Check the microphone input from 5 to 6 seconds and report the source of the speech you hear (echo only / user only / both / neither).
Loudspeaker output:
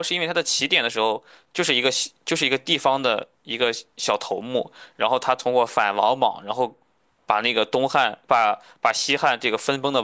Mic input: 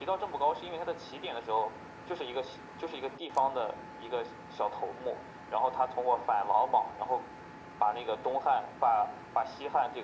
echo only